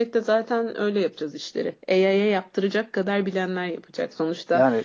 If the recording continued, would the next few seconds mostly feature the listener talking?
No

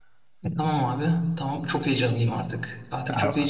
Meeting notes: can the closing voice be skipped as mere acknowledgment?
Yes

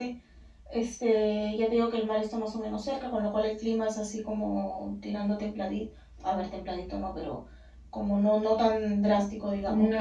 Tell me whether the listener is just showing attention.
No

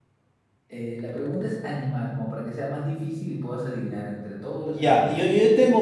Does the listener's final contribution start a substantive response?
Yes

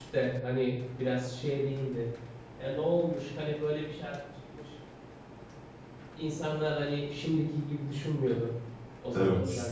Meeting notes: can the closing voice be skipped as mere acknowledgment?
Yes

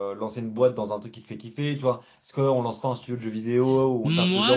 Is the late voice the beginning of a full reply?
Yes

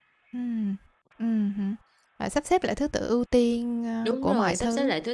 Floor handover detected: Yes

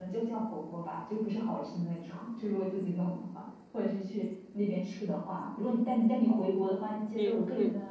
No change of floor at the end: No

